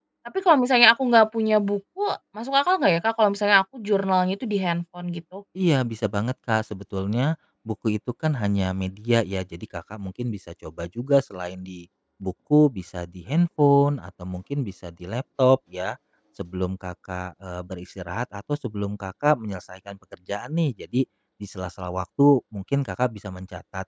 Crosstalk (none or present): none